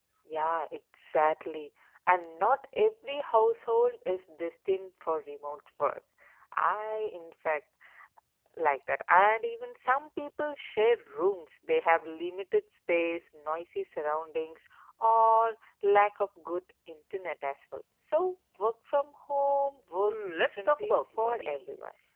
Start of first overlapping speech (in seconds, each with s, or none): 20.0 s